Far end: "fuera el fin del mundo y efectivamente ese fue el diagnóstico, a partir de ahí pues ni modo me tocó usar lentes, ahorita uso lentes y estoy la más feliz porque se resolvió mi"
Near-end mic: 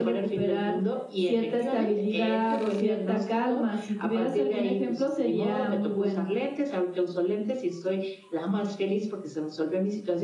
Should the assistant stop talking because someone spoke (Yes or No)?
Yes